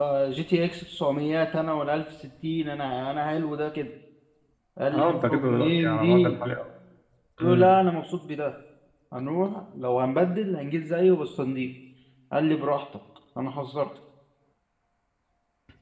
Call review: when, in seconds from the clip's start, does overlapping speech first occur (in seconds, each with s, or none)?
4.9 s